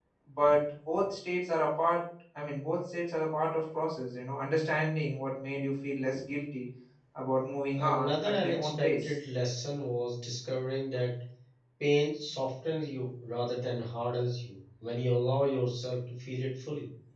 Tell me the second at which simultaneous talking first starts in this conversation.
7.8 s

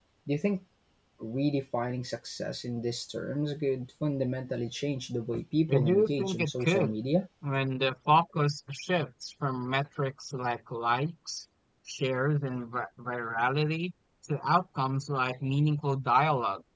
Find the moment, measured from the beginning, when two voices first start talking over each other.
5.7 s

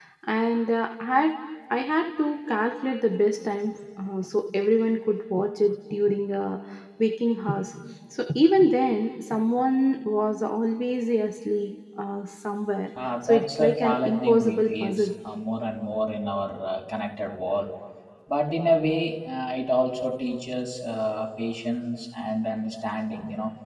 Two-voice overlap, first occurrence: 13.2 s

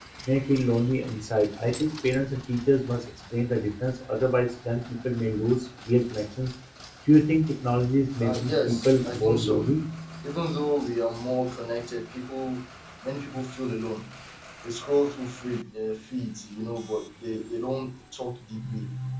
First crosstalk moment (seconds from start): 8.2 s

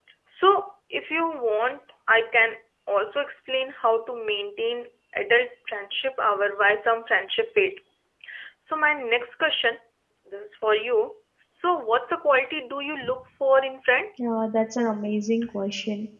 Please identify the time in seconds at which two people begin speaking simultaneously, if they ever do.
none

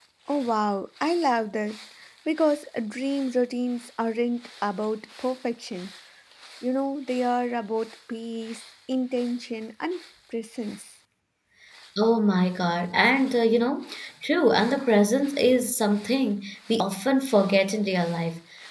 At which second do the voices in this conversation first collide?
none

